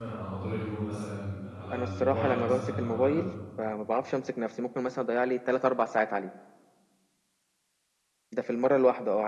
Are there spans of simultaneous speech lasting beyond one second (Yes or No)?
Yes